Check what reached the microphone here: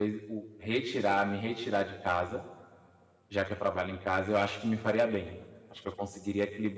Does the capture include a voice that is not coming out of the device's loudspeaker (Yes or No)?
Yes